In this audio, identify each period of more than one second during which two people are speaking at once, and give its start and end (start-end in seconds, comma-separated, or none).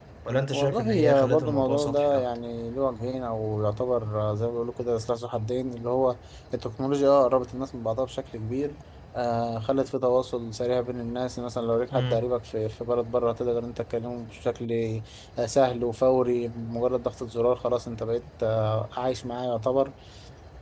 0.5-2.3